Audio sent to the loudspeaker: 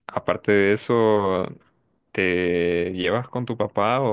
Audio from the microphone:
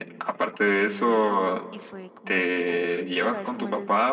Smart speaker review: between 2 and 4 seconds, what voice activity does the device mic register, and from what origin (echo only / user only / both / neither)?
both